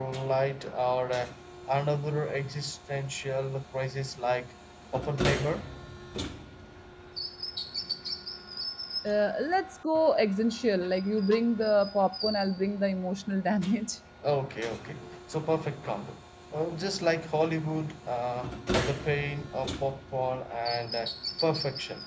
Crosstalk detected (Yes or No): No